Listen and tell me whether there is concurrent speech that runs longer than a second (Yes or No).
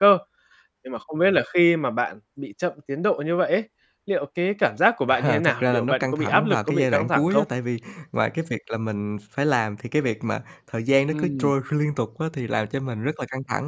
Yes